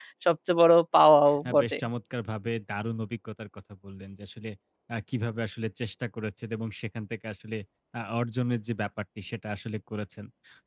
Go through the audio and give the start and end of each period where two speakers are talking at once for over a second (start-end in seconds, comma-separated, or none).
none